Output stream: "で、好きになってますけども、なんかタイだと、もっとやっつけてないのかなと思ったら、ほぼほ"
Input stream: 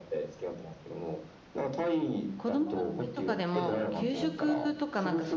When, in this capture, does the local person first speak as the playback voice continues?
2.4 s

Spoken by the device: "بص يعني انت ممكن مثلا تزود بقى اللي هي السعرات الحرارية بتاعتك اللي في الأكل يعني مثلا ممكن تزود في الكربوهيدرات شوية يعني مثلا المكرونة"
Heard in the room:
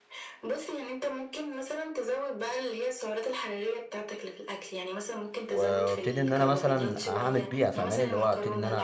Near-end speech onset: 5.5 s

